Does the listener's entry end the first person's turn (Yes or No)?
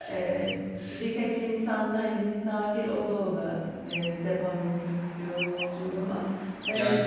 Yes